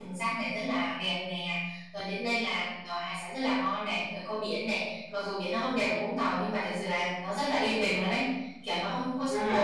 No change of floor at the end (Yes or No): No